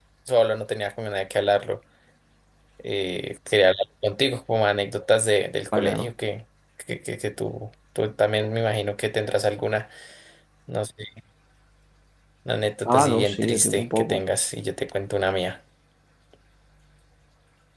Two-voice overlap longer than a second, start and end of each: 12.8-14.2

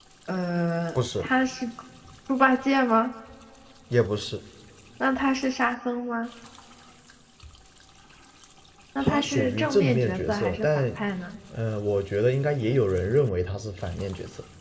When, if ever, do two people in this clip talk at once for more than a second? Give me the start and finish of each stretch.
9.0-10.8

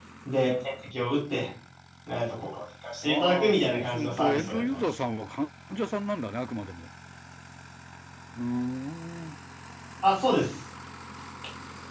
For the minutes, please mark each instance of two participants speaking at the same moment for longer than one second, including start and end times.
3.0-4.8

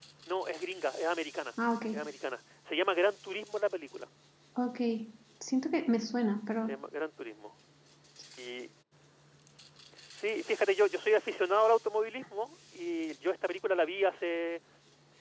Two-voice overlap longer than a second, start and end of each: none

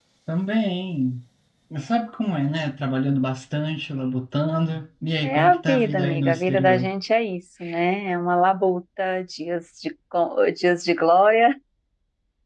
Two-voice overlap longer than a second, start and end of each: 5.2-6.9

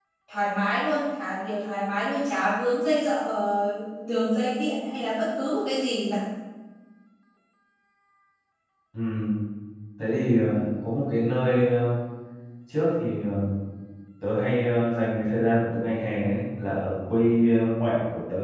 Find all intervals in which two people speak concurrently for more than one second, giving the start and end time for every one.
none

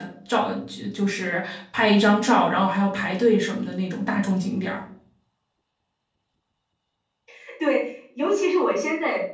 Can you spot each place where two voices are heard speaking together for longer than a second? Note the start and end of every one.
none

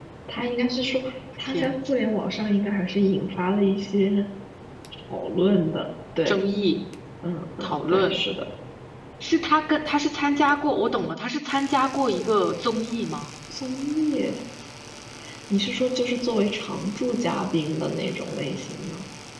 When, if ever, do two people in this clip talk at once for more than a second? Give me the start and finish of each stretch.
none

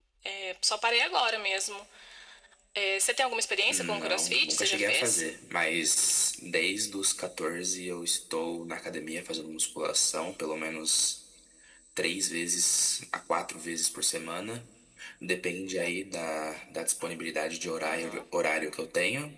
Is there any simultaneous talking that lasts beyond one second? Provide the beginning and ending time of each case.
3.7-5.2

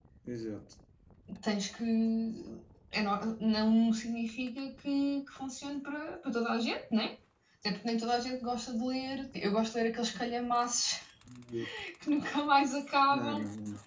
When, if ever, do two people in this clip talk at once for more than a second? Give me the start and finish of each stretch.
none

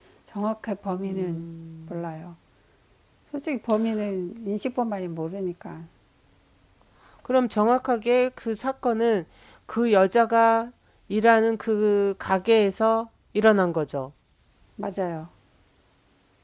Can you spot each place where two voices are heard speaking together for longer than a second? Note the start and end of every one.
none

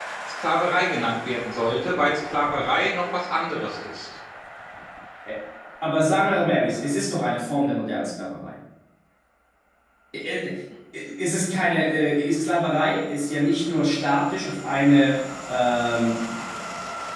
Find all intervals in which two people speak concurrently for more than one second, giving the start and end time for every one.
none

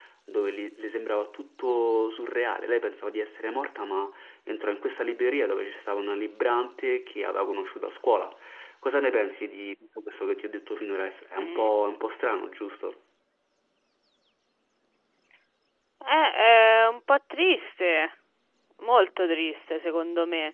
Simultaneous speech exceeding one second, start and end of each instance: none

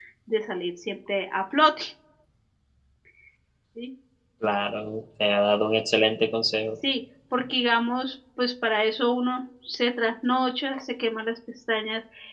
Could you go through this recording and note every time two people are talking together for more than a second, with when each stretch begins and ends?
none

